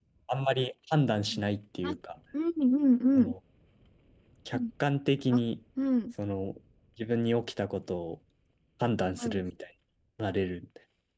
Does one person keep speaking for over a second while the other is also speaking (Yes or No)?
No